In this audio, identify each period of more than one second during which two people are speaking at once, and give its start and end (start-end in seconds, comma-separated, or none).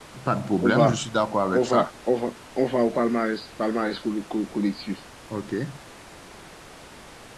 none